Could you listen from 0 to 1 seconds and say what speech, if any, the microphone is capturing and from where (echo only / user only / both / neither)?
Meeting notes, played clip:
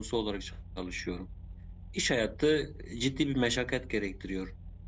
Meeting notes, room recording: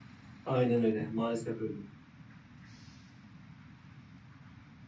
user only